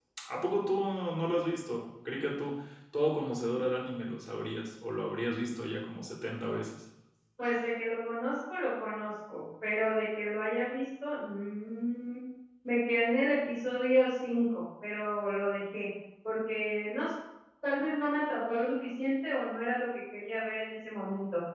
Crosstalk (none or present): none